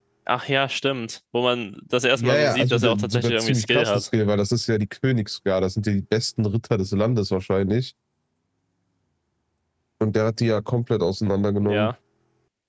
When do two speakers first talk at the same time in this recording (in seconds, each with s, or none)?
2.2 s